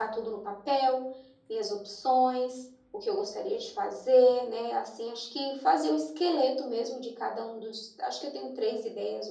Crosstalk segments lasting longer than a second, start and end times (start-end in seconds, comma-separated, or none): none